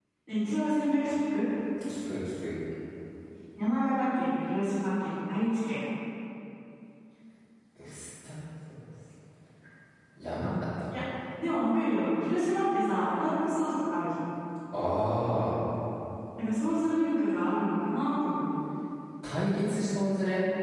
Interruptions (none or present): none